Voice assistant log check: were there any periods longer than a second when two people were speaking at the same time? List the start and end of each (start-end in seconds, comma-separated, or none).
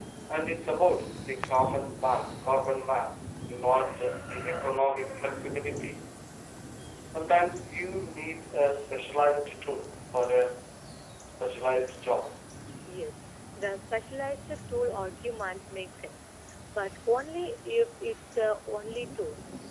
none